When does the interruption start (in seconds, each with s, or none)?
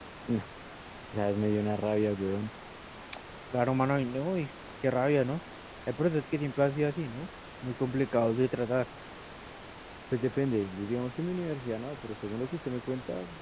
none